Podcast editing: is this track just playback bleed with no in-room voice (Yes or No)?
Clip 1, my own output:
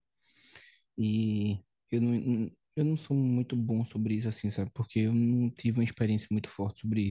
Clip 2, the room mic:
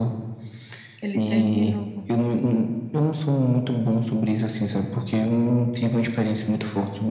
No